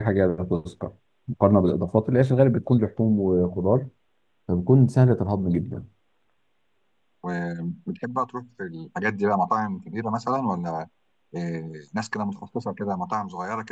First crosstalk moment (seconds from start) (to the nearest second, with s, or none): none